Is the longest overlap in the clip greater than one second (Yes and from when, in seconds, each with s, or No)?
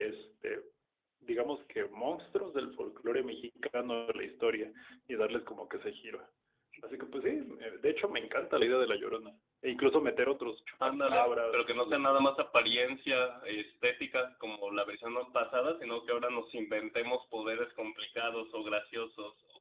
Yes, from 10.8 s